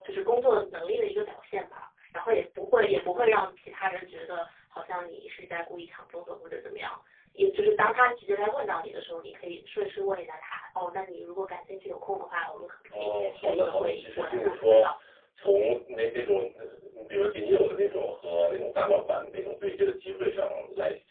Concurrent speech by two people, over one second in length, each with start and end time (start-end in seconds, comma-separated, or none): 13.0-14.9